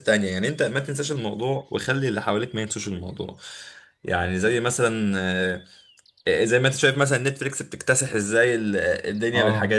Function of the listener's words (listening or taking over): listening